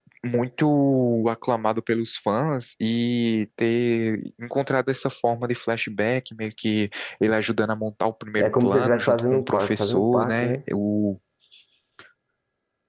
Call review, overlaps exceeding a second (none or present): present